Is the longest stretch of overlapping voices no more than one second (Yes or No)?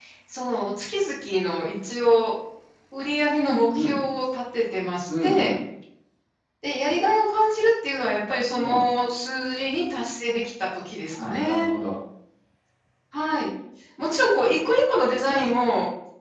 Yes